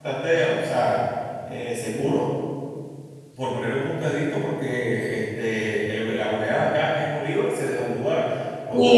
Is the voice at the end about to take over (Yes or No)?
Yes